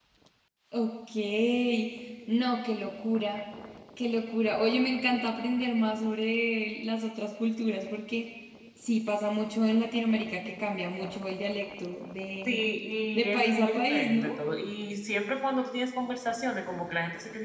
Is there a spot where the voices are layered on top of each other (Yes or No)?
Yes